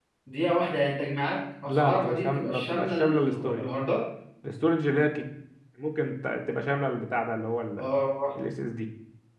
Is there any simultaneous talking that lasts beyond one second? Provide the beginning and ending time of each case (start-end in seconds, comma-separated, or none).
1.6-3.6